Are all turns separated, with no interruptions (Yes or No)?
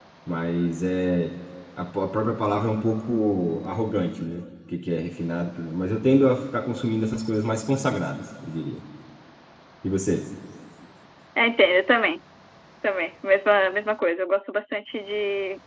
Yes